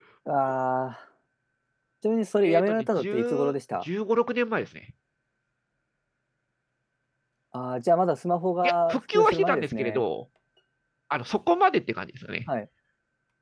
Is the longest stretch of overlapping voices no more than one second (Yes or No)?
No